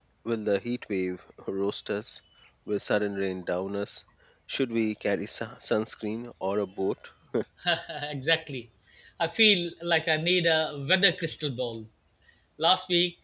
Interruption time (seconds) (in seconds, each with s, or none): none